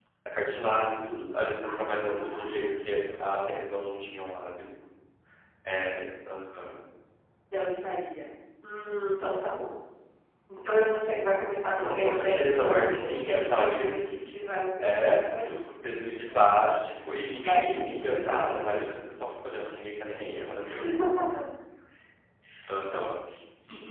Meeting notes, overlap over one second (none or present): present